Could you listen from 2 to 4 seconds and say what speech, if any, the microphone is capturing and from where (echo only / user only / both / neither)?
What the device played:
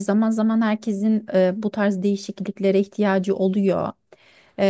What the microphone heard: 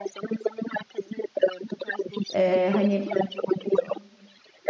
both